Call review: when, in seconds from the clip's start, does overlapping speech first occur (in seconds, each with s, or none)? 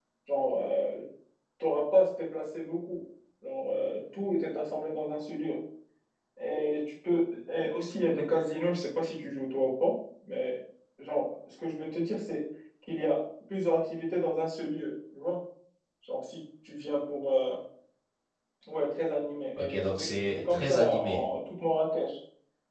19.6 s